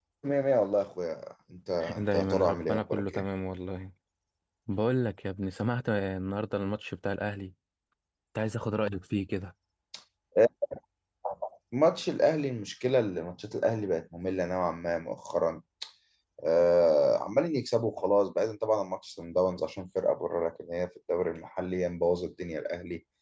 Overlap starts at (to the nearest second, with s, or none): 2 s